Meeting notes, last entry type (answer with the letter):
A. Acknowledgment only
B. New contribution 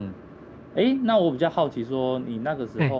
A